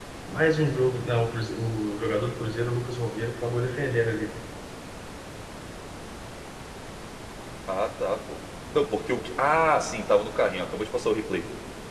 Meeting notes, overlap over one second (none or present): none